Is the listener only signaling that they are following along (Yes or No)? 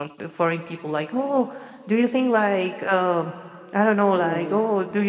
Yes